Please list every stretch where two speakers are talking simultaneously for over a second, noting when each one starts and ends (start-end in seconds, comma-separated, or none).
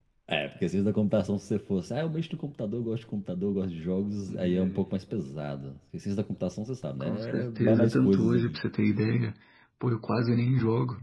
7.0-8.6